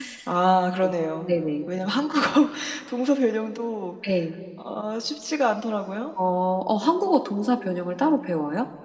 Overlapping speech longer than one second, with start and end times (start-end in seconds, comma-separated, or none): none